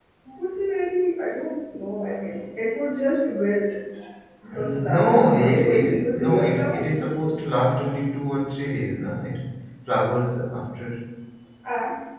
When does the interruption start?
4.5 s

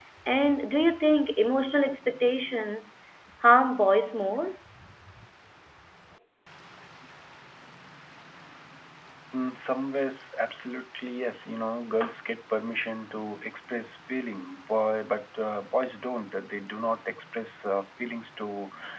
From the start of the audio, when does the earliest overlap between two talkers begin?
none

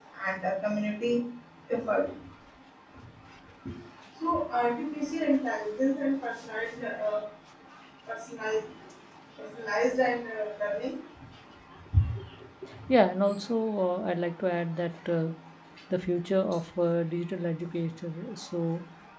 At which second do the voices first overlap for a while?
none

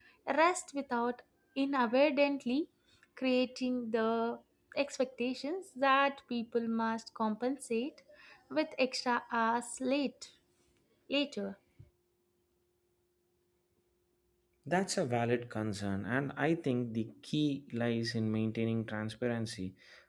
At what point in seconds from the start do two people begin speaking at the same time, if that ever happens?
none

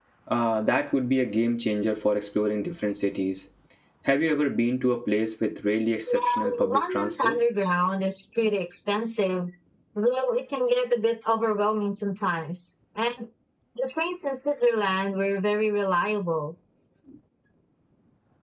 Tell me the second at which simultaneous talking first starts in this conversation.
6.1 s

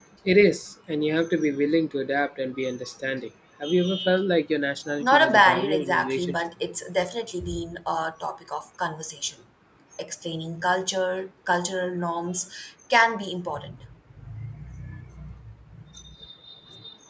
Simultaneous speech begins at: 5.0 s

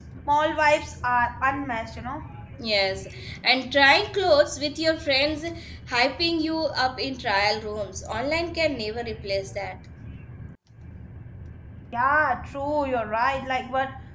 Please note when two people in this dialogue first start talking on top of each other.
none

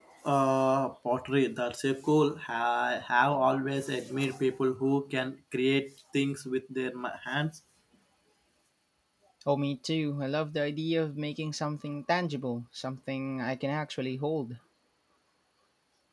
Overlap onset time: none

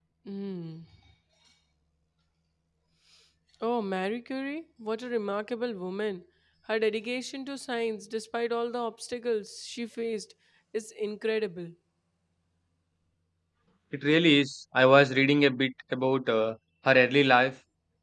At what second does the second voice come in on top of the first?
none

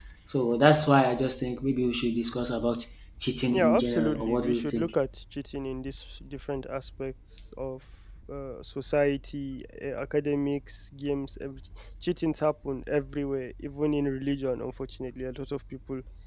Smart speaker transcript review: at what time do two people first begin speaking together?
3.5 s

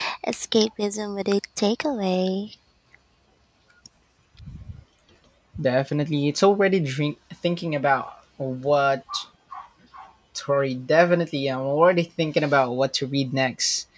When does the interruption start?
none

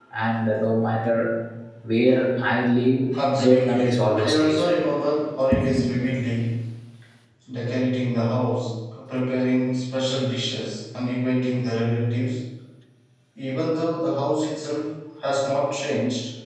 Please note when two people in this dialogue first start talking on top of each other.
3.5 s

